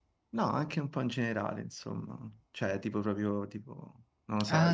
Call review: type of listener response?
taking over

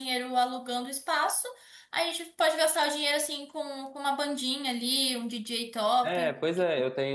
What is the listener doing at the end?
taking over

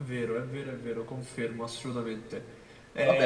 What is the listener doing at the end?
taking over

